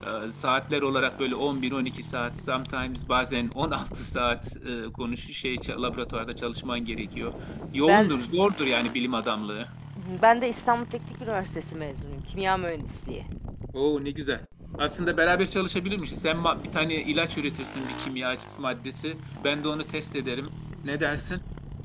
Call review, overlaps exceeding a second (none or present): none